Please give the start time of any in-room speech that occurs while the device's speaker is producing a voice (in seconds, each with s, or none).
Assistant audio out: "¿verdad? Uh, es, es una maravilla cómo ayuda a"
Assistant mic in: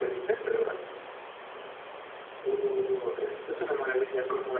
none